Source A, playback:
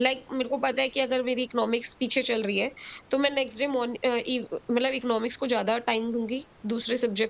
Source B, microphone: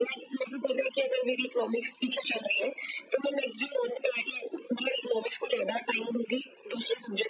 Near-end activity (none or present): none